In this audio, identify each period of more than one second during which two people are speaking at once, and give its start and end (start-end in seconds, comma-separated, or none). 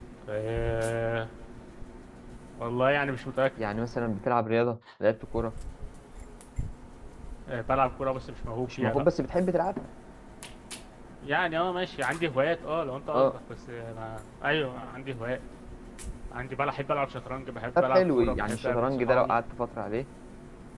17.8-19.3